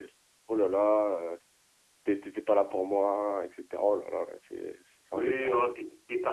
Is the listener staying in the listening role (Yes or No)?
No